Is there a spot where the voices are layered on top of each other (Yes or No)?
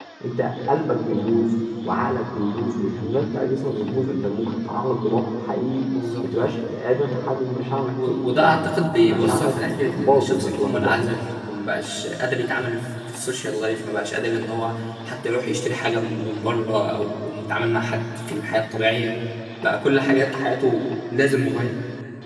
Yes